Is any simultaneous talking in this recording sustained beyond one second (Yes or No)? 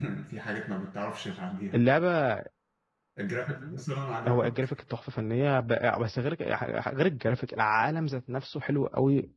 No